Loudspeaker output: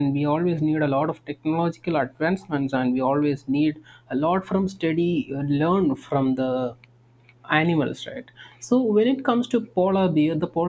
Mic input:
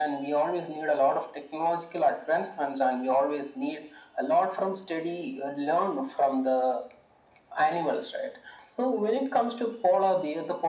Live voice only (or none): none